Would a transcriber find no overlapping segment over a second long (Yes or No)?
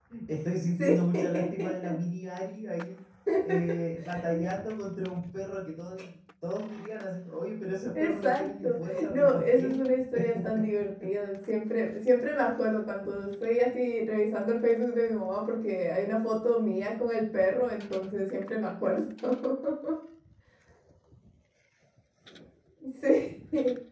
No